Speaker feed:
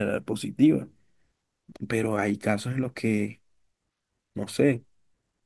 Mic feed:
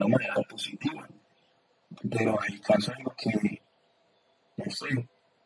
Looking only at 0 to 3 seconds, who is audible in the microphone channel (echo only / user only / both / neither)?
echo only